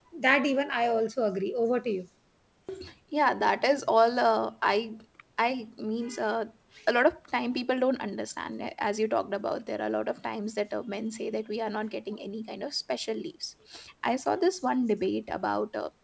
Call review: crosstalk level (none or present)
none